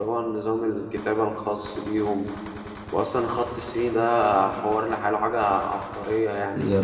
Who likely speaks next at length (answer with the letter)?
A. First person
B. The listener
B